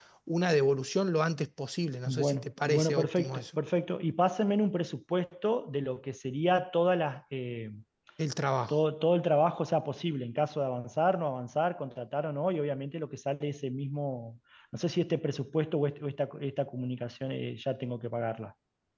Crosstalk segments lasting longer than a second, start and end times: 2.0-3.6

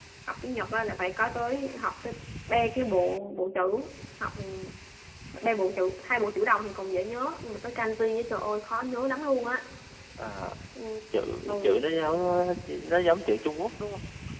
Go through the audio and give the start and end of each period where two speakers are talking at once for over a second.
none

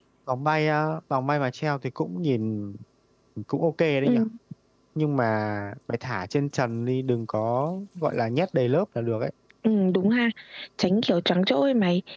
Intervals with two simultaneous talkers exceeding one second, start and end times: none

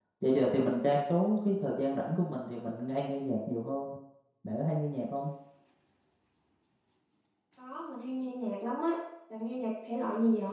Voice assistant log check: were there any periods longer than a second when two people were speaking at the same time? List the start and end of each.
none

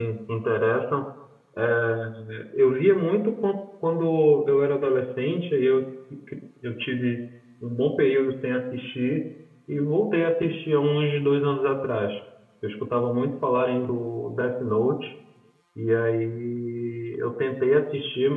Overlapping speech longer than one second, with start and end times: none

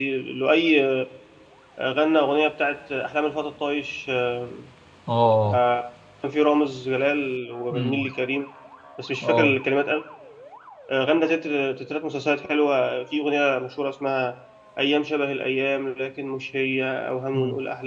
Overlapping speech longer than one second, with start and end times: none

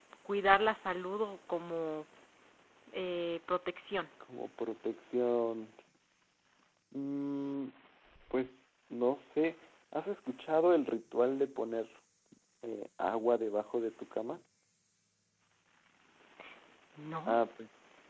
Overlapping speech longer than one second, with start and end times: none

